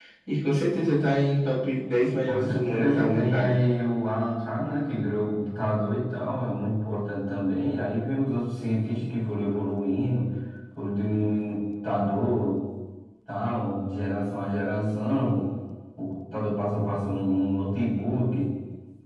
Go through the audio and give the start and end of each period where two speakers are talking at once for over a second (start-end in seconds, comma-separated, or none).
2.2-3.5